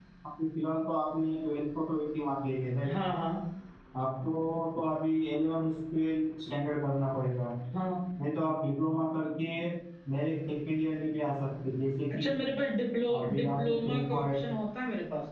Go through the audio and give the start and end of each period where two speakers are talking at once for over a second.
13.2-14.5

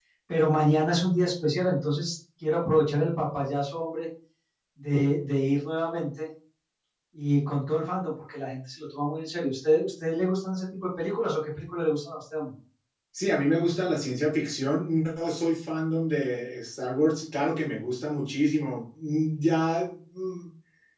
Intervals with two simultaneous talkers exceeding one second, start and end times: none

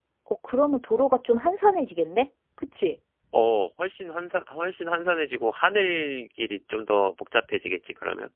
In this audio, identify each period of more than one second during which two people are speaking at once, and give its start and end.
none

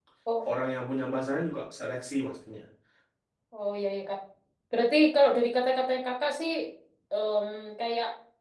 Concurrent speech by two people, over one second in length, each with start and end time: none

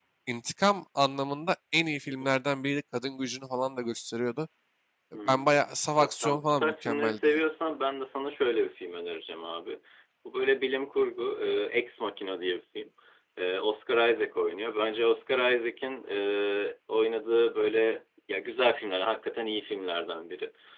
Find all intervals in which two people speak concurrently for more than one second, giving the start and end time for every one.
5.2-7.4

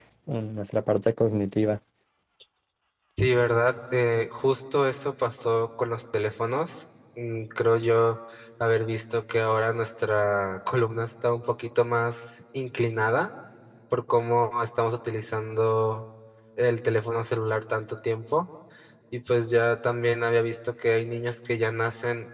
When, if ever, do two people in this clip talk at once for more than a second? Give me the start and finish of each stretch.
none

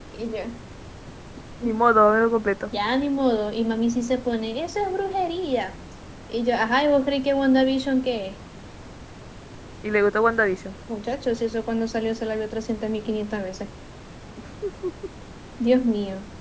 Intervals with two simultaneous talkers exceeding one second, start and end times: none

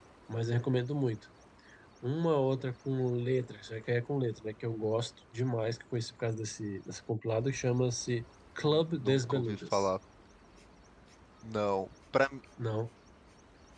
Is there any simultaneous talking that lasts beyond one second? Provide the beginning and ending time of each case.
8.6-9.9

